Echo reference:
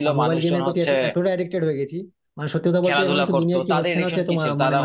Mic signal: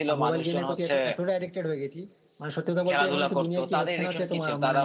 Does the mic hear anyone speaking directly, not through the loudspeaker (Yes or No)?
No